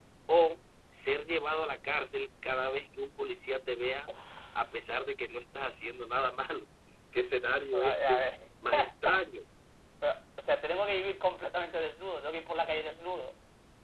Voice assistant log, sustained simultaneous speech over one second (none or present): none